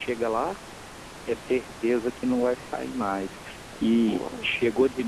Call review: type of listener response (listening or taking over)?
listening